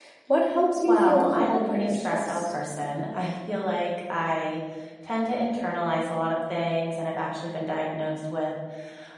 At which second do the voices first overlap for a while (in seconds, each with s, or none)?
0.9 s